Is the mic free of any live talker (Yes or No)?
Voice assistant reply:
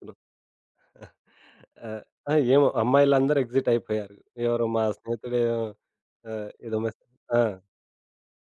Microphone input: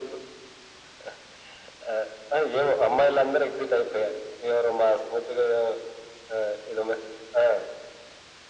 Yes